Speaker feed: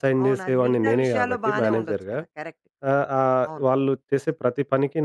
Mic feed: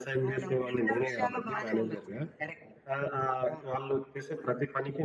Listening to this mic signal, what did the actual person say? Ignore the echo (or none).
none